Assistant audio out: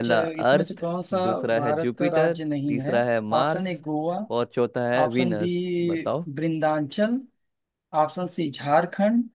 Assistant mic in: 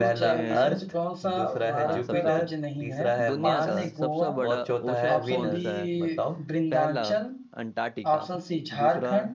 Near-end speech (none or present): present